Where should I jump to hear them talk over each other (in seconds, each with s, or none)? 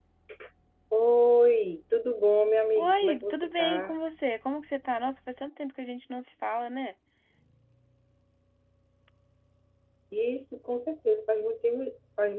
2.8 s